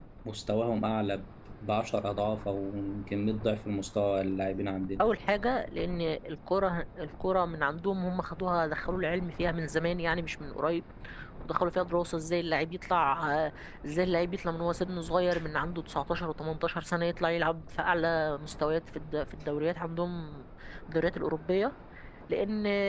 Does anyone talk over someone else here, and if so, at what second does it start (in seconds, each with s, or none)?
none